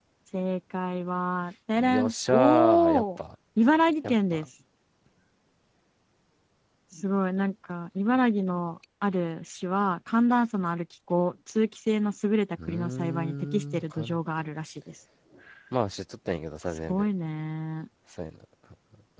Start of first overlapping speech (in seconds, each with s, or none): 1.8 s